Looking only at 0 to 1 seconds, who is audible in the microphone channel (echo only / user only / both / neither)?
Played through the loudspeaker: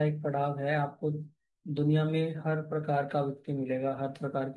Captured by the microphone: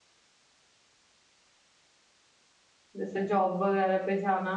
neither